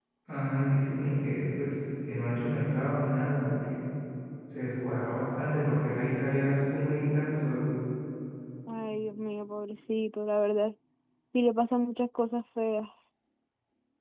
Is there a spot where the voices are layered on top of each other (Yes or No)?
No